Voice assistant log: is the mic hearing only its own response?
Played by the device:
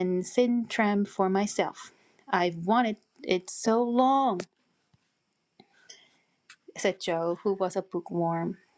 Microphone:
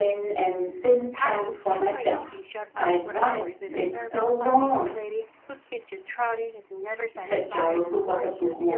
No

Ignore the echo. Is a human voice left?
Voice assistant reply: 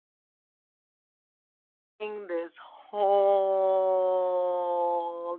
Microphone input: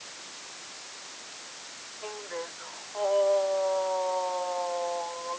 No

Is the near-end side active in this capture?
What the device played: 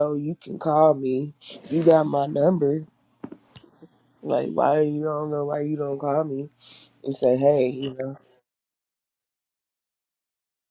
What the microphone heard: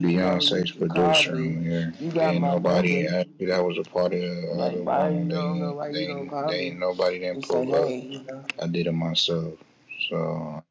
Yes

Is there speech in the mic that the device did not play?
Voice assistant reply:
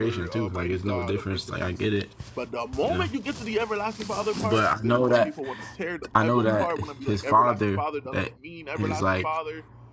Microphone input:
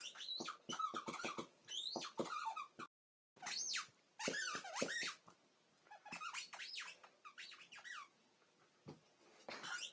No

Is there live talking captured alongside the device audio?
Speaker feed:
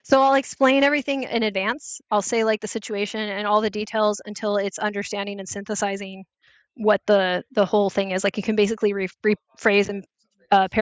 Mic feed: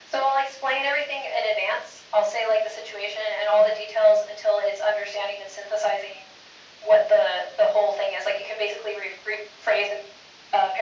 No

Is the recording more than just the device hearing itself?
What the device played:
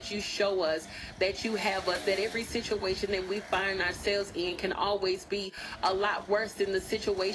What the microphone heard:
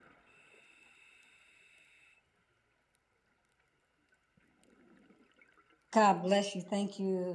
Yes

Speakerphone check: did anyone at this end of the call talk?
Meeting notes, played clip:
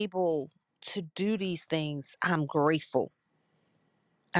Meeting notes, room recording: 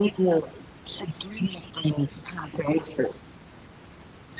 No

